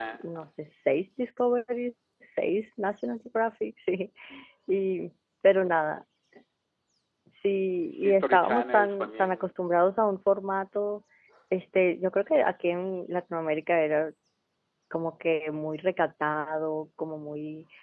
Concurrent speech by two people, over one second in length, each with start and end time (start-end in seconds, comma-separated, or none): 8.0-9.5